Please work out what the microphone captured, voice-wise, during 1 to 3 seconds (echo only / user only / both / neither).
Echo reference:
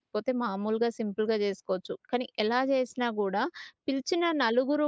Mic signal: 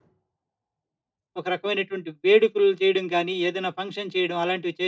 user only